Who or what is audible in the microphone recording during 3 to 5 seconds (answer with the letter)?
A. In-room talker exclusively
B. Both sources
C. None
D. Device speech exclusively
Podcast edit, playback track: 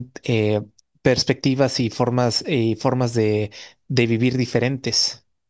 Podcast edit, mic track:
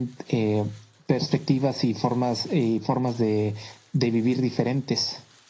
D